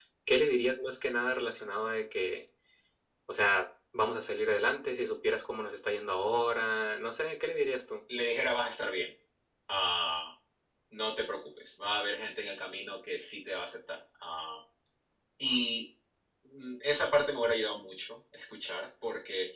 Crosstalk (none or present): none